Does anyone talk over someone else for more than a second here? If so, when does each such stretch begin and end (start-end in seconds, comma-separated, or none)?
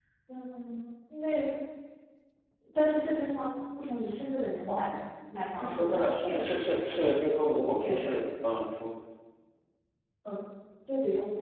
5.6-6.9